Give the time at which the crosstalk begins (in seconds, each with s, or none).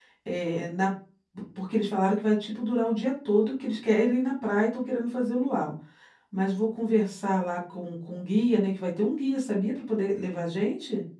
none